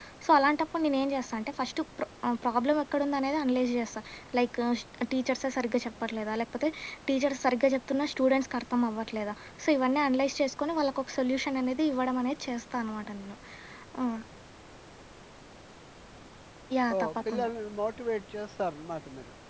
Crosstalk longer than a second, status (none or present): none